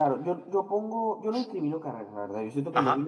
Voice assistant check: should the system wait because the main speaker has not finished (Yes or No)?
Yes